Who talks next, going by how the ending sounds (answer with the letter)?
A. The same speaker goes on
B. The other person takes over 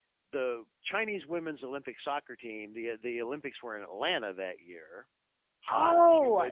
B